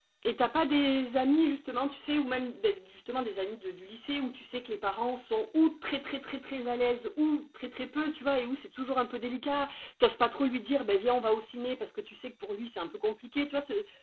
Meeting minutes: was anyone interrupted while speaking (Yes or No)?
No